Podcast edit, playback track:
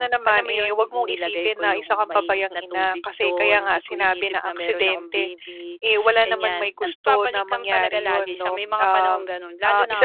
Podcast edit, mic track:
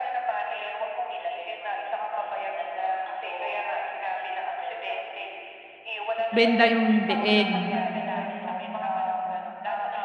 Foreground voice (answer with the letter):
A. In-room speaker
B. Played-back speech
A